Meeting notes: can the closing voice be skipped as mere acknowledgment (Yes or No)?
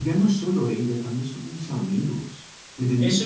No